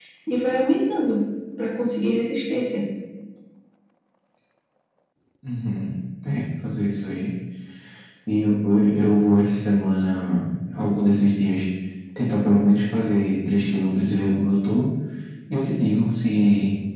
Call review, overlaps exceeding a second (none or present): none